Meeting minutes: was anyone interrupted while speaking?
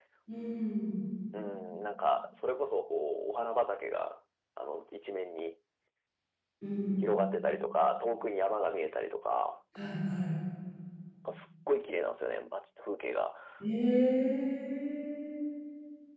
No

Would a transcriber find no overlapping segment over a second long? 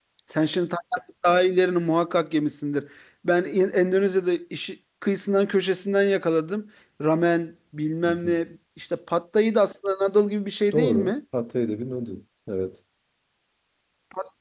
Yes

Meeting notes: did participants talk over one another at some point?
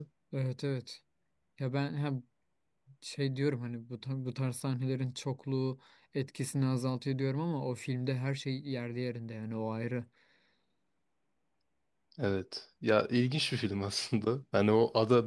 No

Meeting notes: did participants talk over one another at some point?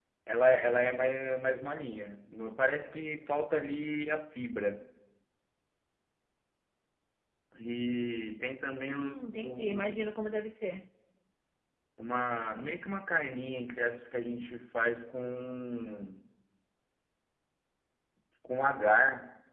Yes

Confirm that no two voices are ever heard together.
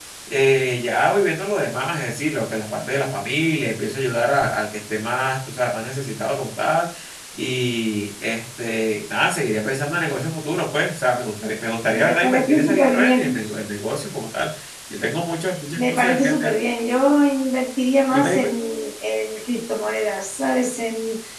No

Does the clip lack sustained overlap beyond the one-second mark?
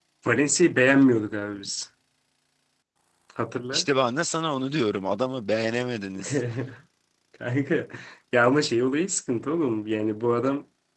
Yes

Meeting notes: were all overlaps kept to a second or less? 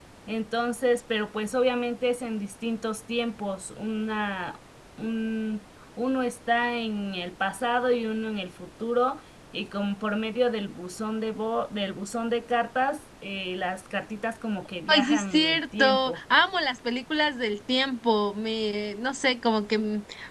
No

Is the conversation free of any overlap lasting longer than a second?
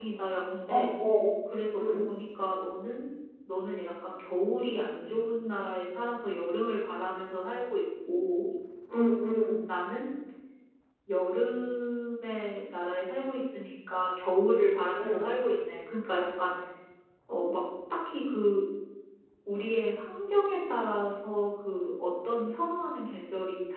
Yes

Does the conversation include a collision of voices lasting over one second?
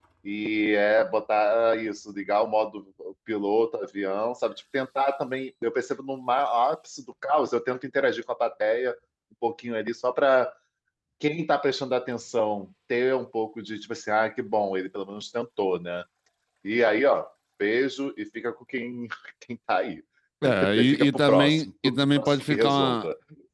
Yes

